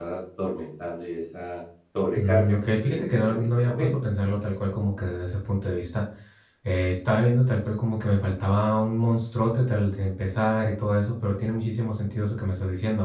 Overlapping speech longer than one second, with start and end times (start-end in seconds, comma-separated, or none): 2.2-3.9